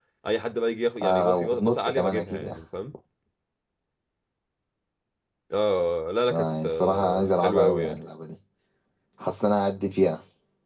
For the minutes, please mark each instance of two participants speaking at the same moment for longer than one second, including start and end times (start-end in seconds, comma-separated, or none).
1.0-2.6, 6.3-8.0